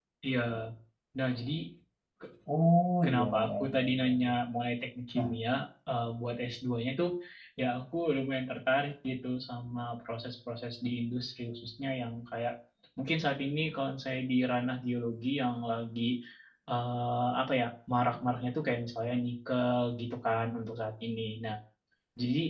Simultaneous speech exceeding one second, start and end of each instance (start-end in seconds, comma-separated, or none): 3.0-4.3